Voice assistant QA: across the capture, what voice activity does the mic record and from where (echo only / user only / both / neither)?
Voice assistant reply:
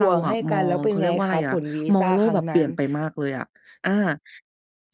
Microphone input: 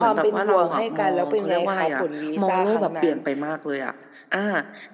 echo only